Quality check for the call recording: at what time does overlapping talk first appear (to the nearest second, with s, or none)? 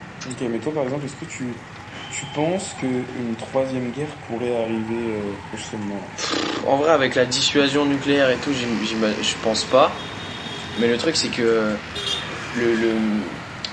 none